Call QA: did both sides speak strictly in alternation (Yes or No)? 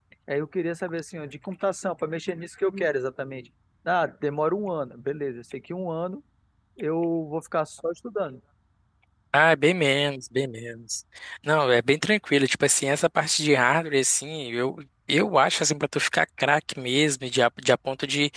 Yes